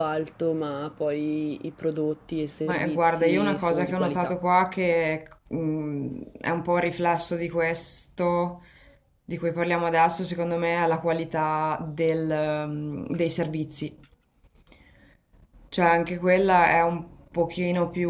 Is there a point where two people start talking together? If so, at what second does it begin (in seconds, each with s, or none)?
2.6 s